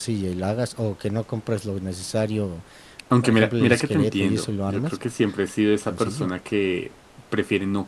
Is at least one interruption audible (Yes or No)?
Yes